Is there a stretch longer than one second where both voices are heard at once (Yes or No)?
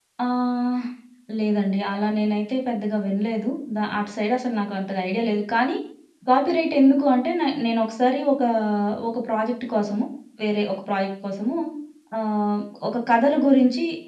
No